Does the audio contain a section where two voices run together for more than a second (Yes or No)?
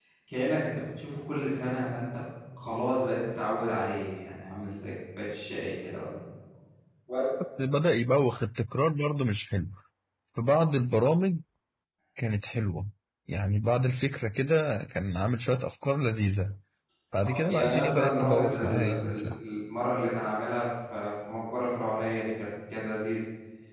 Yes